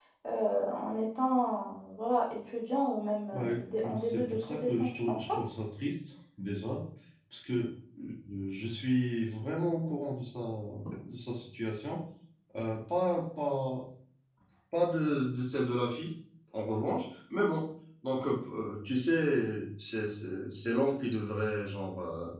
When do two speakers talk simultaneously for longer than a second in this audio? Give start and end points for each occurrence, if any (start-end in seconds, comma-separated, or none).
4.0-5.2